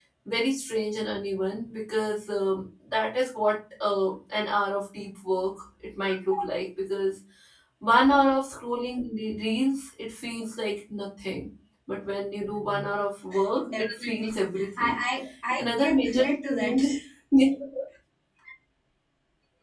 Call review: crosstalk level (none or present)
present